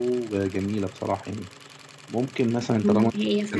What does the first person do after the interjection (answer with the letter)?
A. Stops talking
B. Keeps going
A